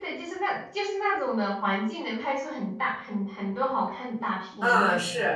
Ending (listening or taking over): taking over